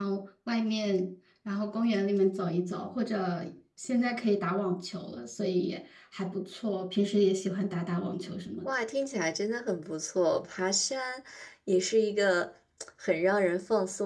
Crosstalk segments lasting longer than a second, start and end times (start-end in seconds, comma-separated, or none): none